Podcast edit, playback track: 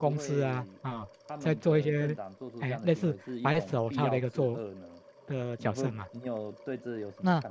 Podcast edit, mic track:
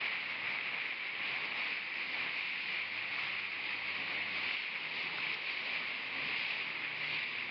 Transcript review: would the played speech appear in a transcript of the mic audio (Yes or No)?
No